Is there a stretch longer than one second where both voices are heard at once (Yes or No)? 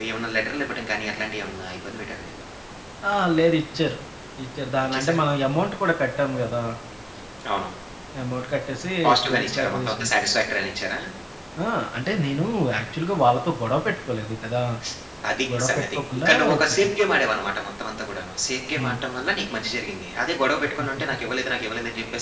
Yes